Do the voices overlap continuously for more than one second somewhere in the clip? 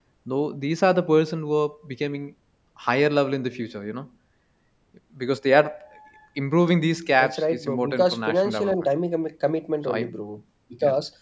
Yes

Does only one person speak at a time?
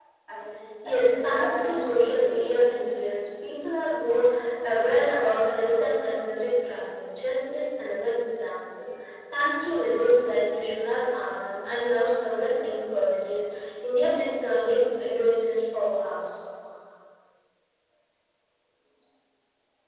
No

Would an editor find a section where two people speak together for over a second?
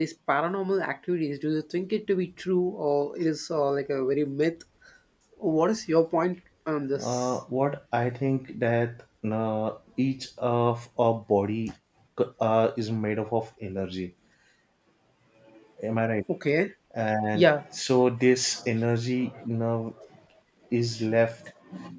No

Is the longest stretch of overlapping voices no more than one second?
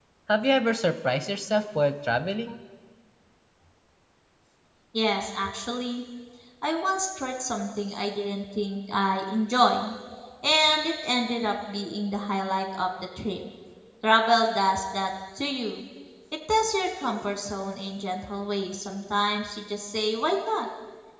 Yes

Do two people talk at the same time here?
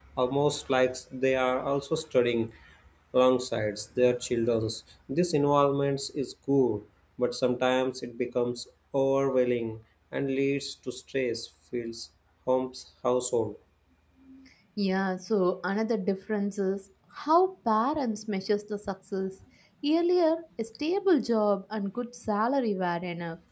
No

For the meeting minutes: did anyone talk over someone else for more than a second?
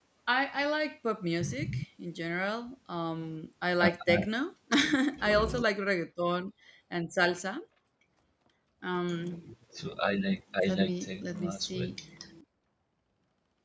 Yes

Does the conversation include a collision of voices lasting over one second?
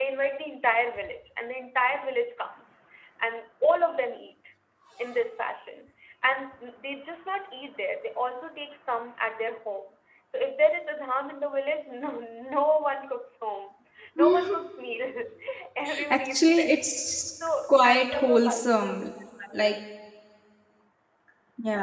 Yes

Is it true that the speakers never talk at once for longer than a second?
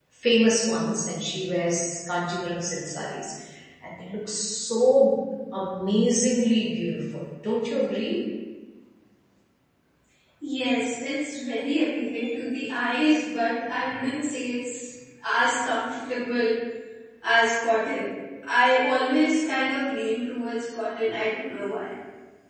Yes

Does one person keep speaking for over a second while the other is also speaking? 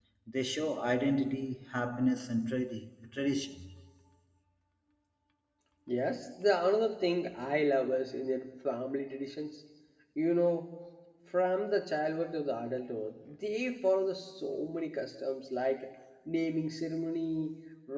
No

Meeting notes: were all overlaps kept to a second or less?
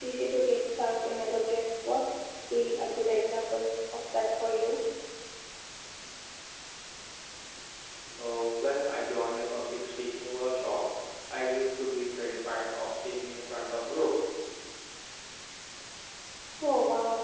Yes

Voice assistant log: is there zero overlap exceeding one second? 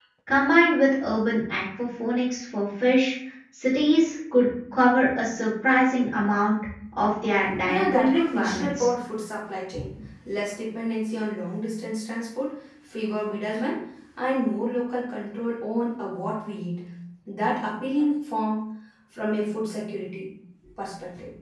No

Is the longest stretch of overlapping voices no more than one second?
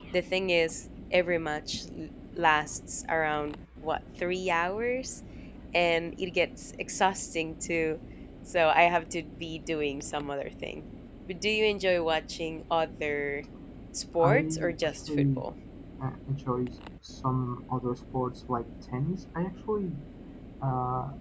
No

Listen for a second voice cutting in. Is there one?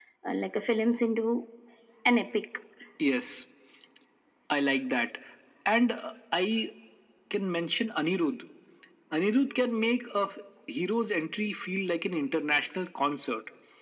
No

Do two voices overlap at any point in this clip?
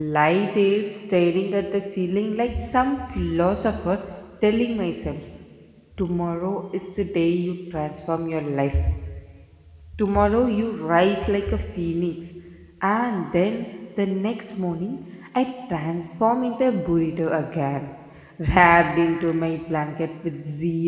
No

